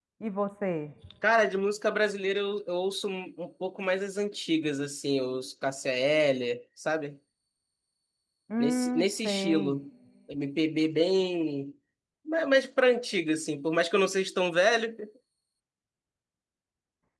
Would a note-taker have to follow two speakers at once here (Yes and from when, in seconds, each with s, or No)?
Yes, from 8.6 s